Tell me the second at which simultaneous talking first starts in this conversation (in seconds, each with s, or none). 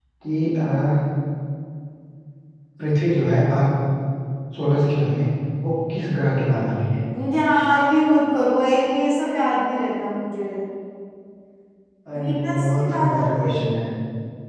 12.2 s